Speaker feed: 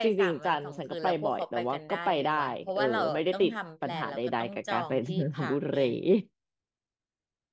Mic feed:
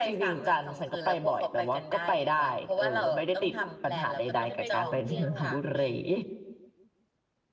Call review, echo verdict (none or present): present